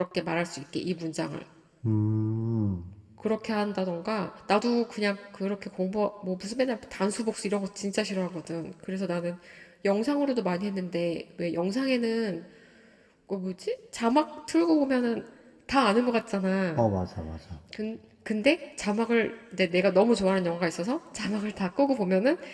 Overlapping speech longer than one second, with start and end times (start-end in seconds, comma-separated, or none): none